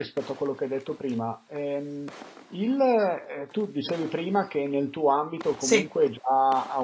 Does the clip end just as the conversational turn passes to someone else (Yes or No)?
No